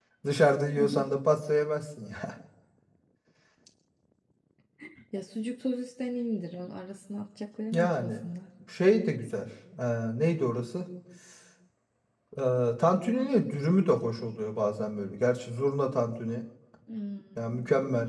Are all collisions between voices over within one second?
Yes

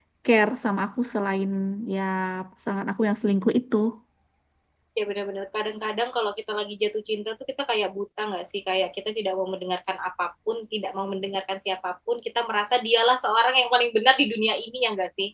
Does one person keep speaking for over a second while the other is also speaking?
No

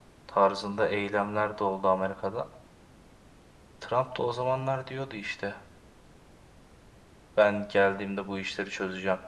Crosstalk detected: No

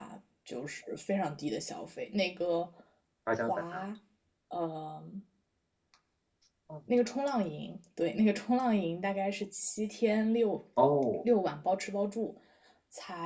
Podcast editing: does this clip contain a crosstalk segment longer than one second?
No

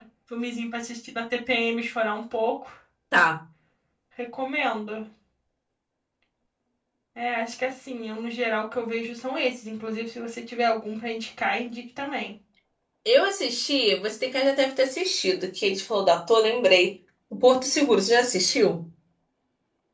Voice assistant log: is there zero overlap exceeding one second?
Yes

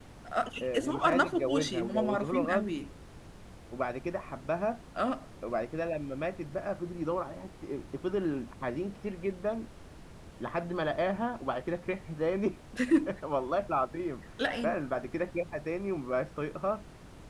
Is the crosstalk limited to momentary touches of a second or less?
No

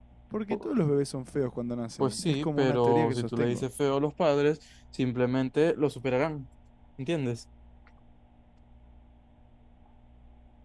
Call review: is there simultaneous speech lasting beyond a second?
Yes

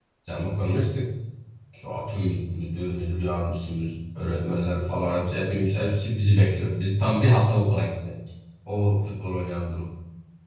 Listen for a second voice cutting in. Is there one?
No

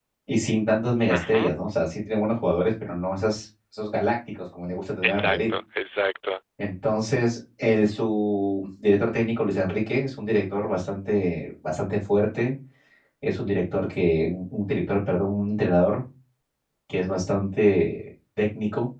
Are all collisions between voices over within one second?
Yes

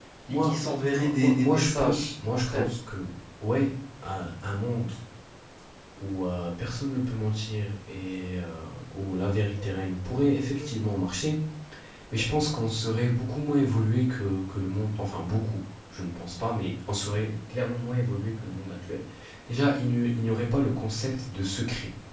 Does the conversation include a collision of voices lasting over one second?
Yes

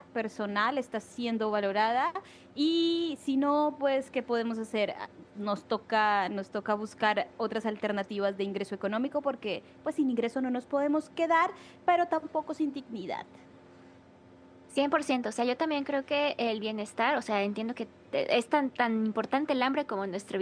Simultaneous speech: No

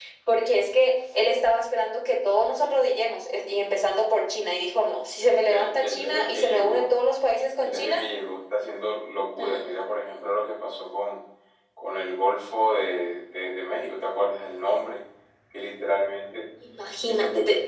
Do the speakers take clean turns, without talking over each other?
No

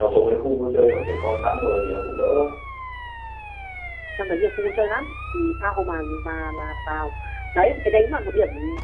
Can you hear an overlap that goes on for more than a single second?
No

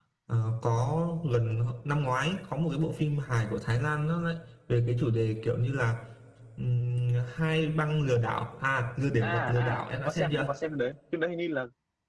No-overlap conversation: No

